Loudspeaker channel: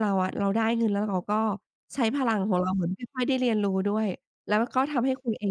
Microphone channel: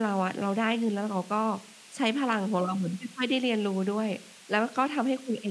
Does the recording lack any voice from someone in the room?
Yes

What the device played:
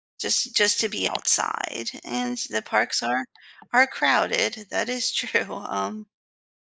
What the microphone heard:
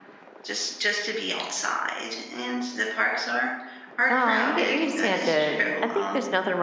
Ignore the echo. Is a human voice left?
Yes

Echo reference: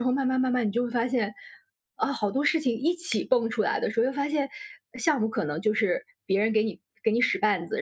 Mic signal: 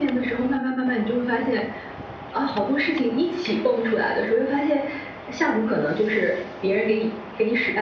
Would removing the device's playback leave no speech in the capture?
Yes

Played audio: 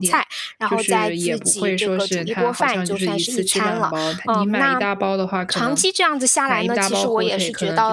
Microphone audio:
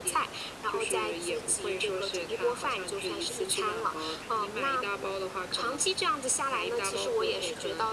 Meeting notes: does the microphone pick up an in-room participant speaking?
No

